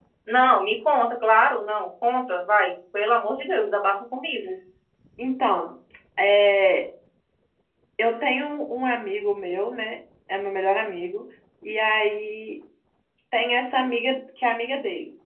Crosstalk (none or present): none